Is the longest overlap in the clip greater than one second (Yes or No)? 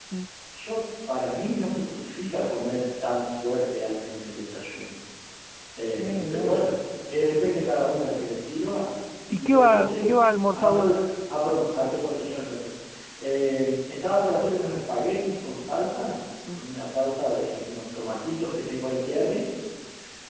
Yes